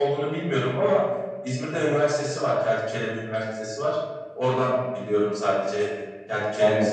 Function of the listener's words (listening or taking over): taking over